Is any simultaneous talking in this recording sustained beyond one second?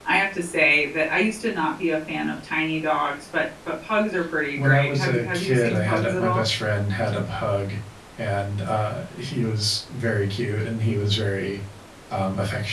Yes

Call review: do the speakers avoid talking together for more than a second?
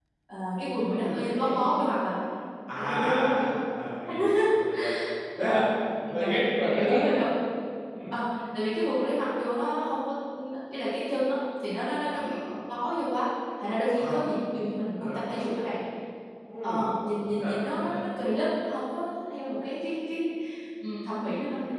No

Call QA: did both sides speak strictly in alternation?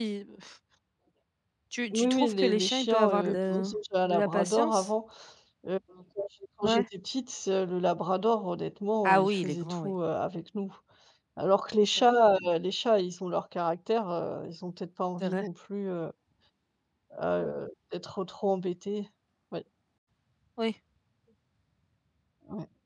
No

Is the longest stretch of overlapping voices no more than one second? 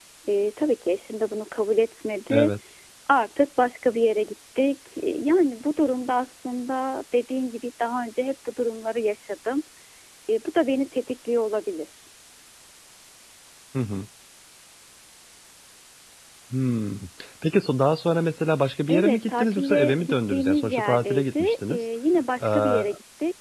No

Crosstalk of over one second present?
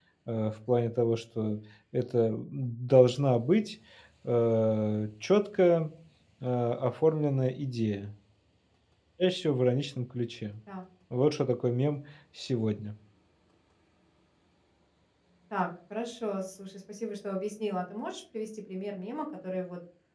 No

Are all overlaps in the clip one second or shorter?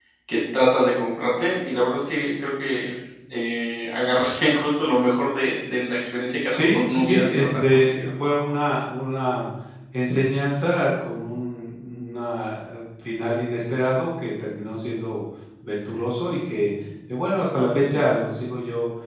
No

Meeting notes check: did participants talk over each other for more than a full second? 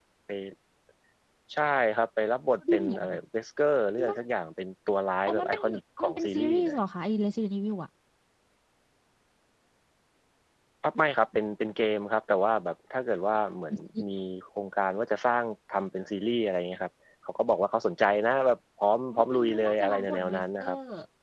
Yes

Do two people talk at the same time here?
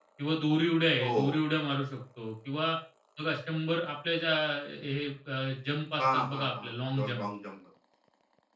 Yes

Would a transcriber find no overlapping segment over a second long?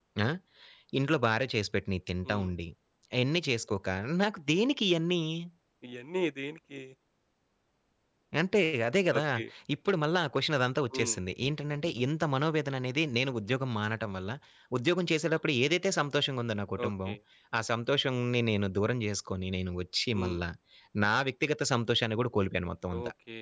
Yes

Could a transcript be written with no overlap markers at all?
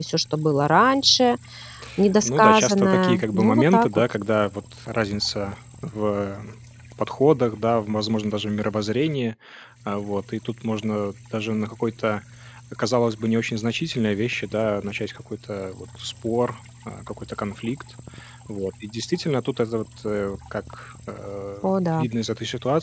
No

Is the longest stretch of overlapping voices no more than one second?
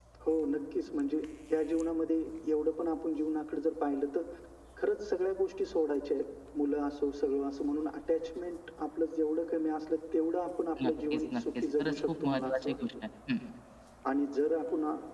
No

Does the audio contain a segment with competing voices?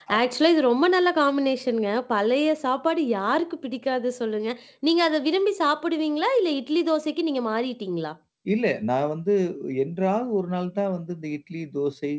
No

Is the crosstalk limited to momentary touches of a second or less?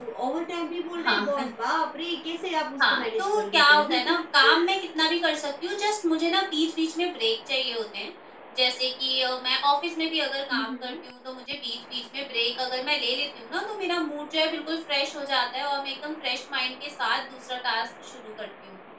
No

